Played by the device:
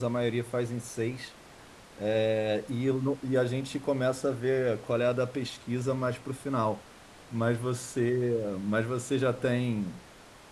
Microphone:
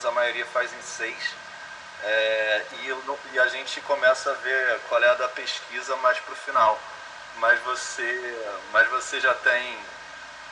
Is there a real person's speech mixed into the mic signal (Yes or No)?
No